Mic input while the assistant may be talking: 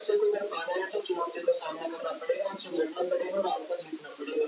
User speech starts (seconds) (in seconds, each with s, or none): none